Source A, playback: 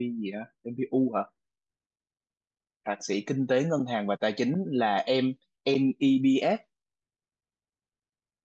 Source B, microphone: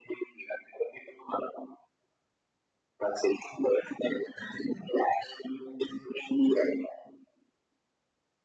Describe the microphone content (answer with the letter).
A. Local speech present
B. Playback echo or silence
B